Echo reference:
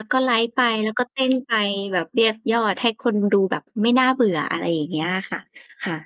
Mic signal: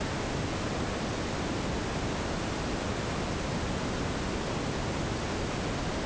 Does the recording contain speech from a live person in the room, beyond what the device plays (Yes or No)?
No